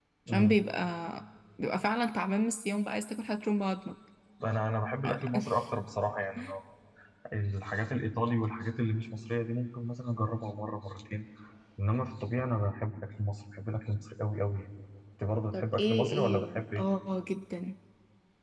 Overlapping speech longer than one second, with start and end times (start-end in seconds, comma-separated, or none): 15.5-16.8